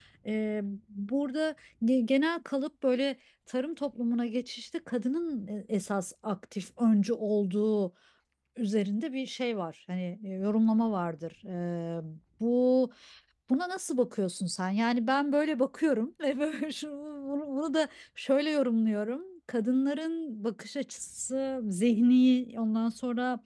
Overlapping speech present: No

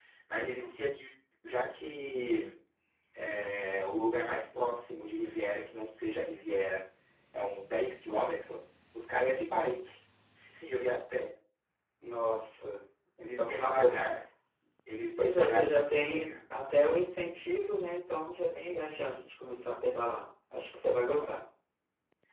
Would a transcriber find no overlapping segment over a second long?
No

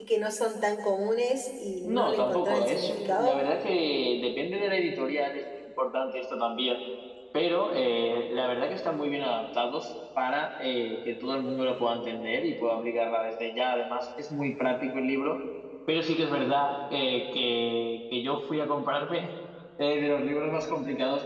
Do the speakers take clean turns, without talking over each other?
No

